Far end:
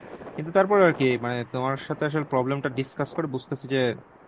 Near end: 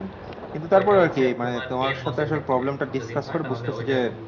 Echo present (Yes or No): Yes